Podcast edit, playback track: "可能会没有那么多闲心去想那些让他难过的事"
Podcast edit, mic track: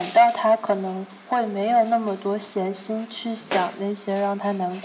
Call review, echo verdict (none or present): present